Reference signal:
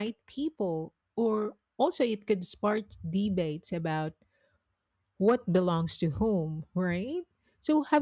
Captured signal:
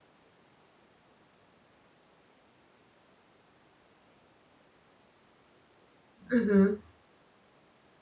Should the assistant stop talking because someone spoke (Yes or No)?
Yes